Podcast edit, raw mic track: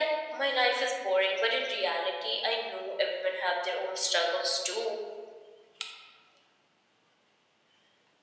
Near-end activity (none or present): none